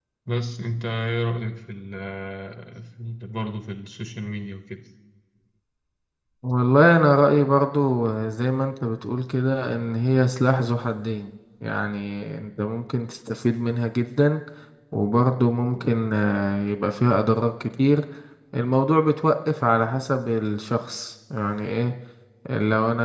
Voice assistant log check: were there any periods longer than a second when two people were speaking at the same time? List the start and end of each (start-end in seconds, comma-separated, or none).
none